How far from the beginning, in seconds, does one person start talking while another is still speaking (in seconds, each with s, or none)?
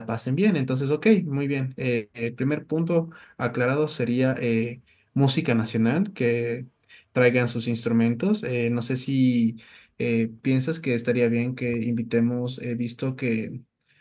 none